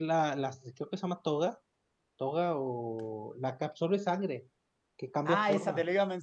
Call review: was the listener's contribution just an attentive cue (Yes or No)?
No